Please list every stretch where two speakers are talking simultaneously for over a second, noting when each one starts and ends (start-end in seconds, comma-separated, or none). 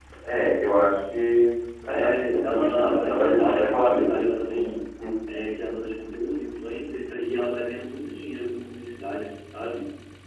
1.9-4.8